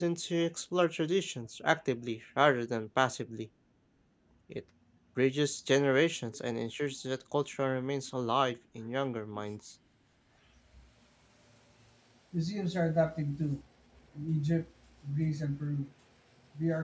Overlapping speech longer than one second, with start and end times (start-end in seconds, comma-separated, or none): none